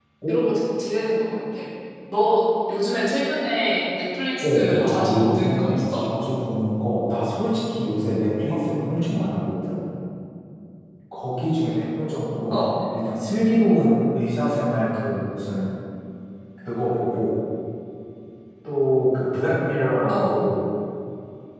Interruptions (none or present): present